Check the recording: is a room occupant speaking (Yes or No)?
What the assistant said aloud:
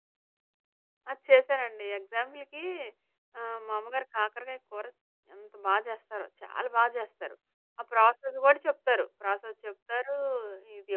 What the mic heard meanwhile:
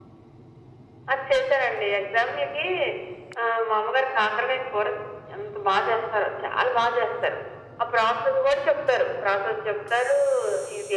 No